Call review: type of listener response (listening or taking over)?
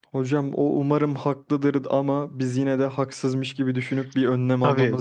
taking over